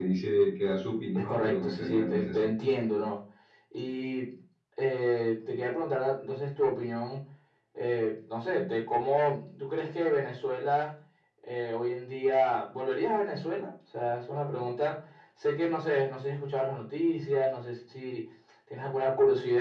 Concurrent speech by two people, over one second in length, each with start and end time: 1.2-2.5

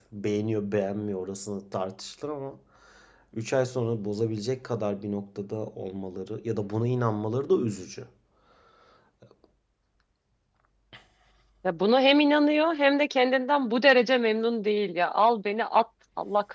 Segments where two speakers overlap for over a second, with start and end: none

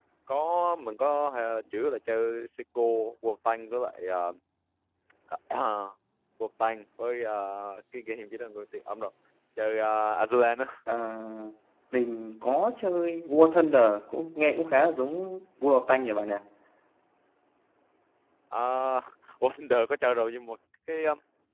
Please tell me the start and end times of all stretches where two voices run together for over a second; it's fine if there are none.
none

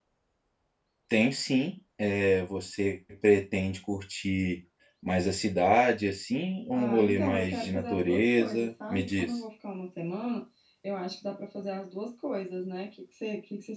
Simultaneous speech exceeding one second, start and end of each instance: 6.7-9.4

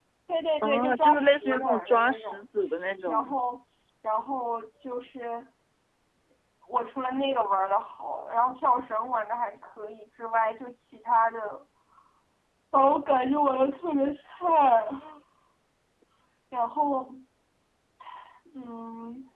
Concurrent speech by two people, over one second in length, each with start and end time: 0.6-2.4

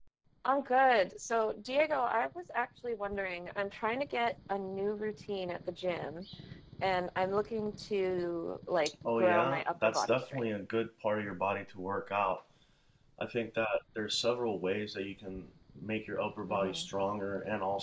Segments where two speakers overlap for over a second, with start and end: 9.2-10.5

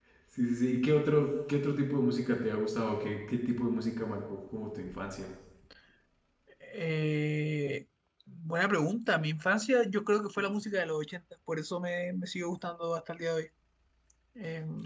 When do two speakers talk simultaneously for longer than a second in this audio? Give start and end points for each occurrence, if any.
none

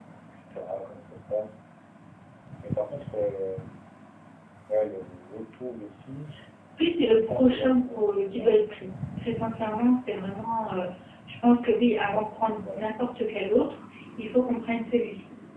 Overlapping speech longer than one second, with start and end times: 7.1-8.8

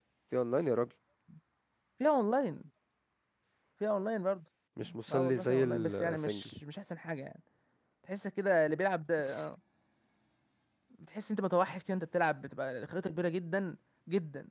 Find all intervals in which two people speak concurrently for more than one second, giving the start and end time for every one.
5.1-6.5

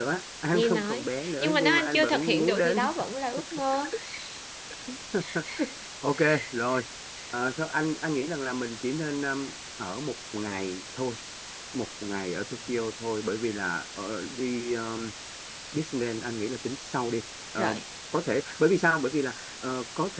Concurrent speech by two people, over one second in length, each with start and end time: 0.5-2.8

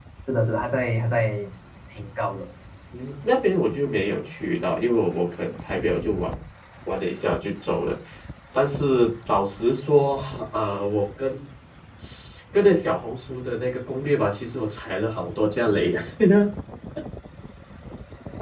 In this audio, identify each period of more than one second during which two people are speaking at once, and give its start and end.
none

